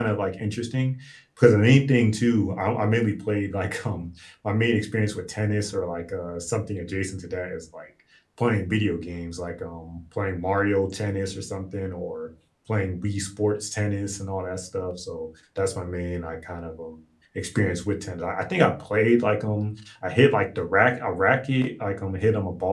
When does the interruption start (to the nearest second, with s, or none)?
none